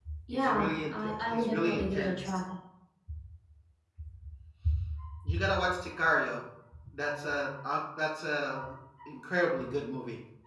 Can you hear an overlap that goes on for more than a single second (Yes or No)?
Yes